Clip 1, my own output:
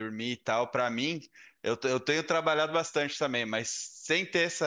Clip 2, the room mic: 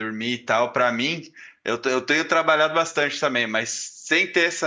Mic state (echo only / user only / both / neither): echo only